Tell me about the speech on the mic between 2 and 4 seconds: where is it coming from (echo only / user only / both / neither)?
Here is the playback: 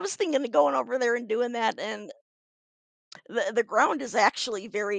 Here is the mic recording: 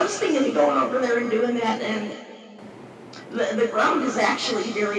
echo only